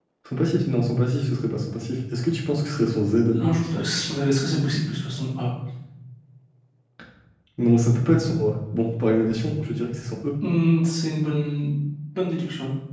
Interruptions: none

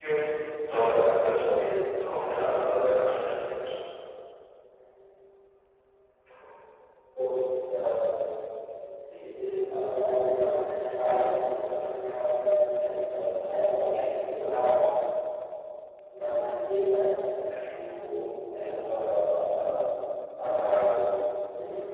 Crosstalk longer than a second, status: none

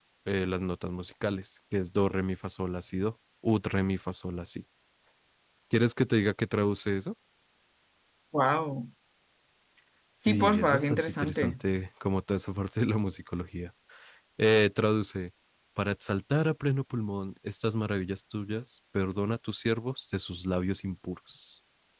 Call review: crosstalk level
present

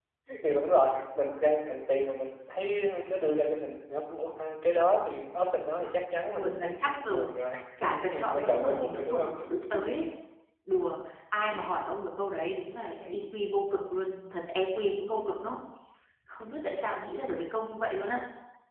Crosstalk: present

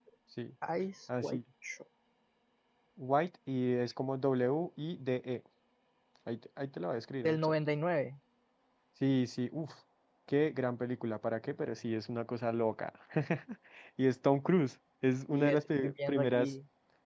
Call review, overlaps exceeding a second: present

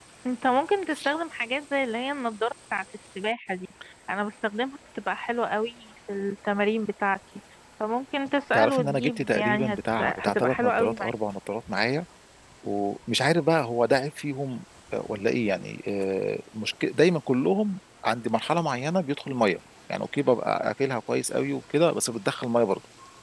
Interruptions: present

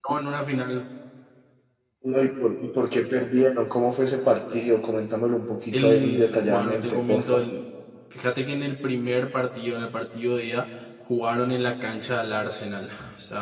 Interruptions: present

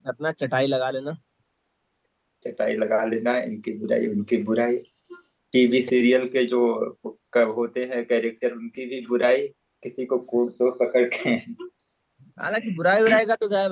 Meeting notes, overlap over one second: none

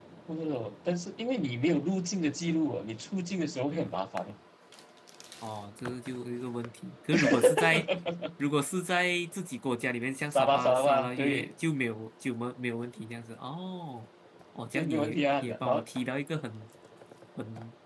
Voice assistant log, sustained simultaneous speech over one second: present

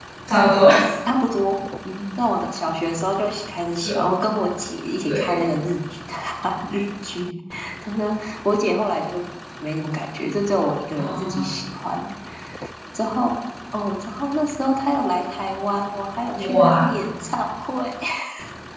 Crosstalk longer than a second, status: none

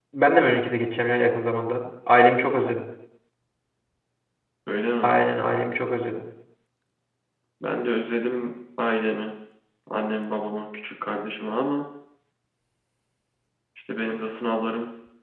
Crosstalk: none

